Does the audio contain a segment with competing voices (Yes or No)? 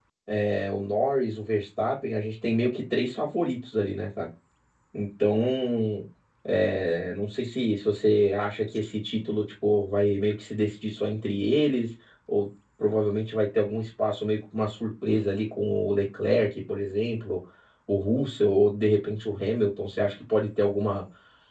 No